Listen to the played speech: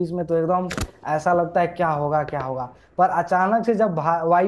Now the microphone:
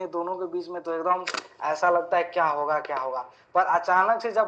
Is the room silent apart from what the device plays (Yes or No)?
Yes